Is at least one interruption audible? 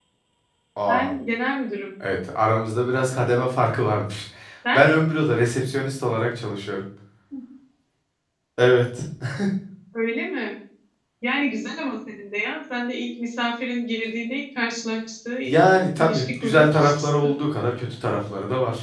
Yes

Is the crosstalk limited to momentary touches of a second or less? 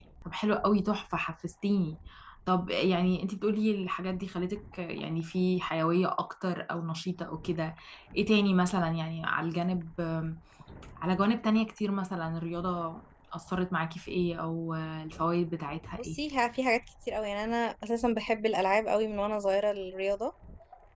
Yes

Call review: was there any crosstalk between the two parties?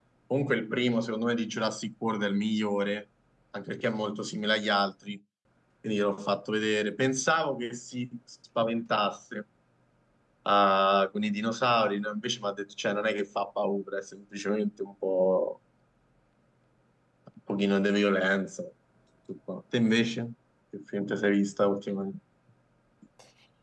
No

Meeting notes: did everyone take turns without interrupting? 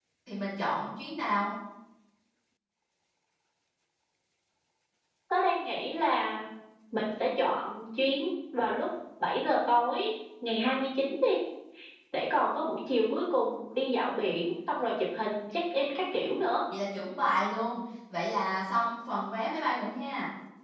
Yes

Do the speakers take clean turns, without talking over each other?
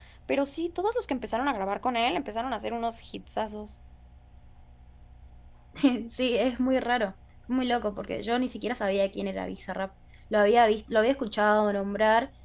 Yes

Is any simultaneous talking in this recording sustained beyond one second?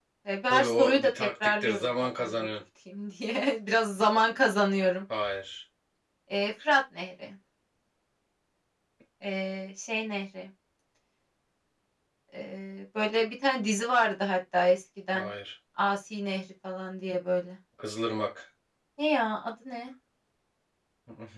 Yes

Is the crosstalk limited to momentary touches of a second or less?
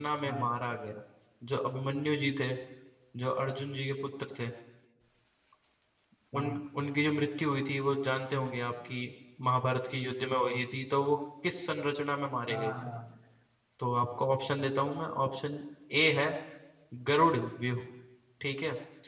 Yes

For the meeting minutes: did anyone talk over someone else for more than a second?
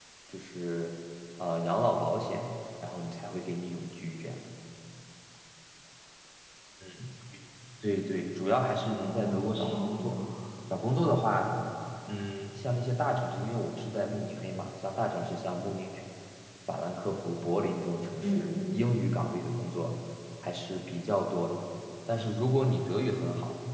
Yes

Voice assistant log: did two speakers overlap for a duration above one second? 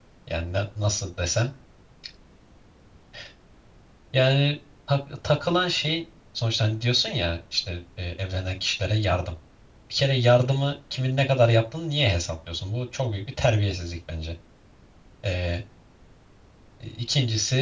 No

